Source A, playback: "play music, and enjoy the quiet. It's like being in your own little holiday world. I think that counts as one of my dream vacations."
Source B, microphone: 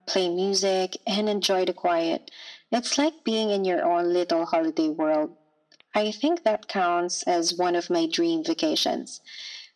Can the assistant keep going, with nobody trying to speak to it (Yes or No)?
Yes